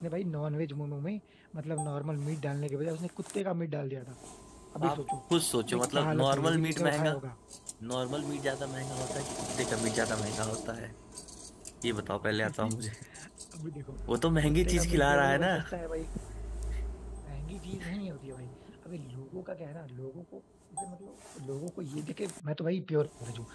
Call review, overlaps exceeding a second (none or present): present